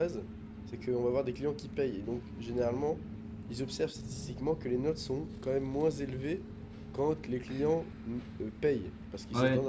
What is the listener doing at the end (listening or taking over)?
taking over